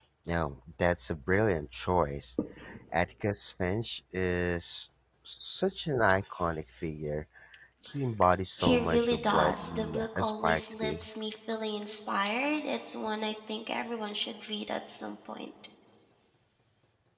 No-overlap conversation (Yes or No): No